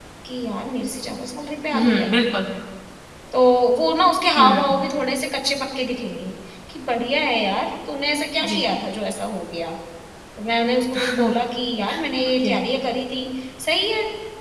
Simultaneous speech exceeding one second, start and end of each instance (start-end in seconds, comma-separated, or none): none